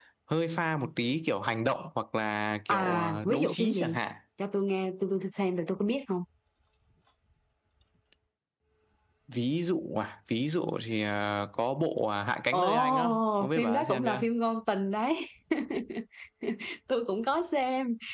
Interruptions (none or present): present